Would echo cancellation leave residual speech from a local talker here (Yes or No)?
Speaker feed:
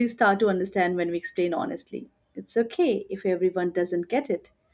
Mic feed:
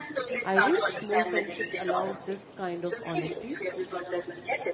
Yes